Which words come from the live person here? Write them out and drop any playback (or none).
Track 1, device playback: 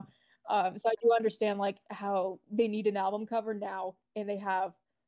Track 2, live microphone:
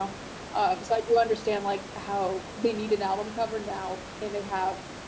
none